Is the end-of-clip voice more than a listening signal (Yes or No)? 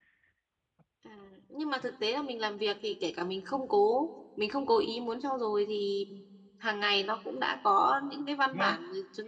No